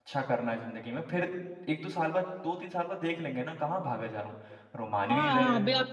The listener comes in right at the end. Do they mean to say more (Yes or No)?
Yes